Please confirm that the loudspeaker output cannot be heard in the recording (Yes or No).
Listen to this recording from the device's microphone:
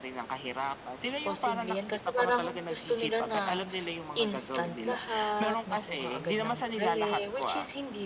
No